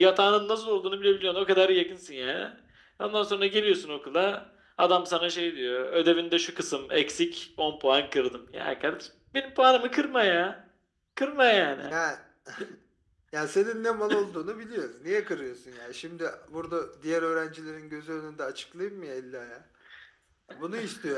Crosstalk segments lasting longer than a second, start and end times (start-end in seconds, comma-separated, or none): none